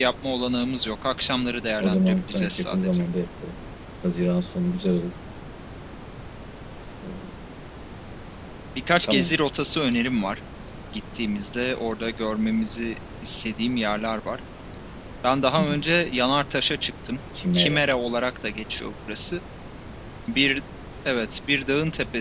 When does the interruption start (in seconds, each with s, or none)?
1.8 s